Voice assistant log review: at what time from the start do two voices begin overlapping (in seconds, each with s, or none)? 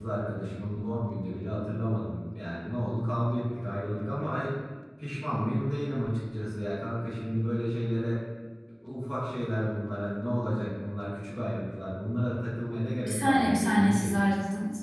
13.0 s